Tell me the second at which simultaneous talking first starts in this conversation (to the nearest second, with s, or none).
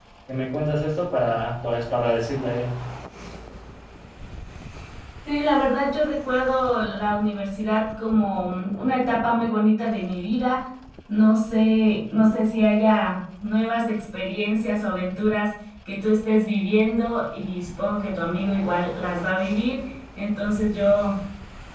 none